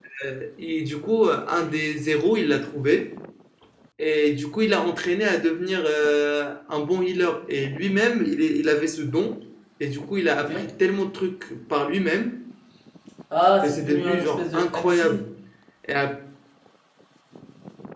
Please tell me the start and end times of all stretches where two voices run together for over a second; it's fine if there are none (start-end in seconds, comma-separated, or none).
13.6-15.2